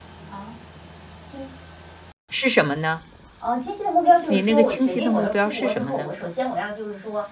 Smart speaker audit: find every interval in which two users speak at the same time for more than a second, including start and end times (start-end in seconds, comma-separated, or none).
4.3-6.1